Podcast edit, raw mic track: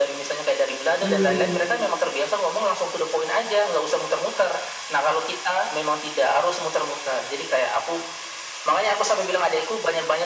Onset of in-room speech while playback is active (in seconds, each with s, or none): 1.0 s